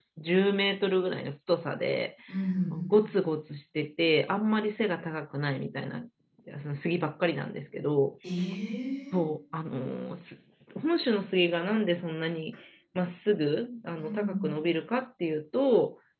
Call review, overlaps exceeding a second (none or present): none